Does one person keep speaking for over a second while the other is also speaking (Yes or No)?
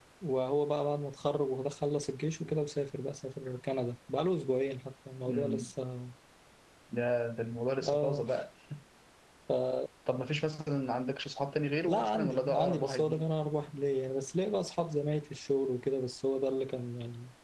Yes